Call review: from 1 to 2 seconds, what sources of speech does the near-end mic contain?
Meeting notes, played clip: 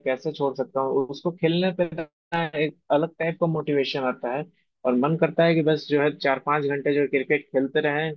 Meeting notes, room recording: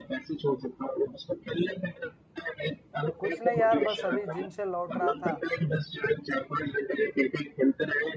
echo only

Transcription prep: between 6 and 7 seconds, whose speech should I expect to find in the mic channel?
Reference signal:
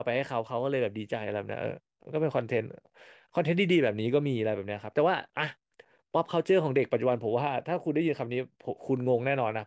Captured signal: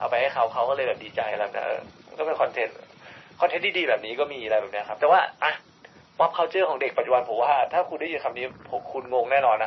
echo only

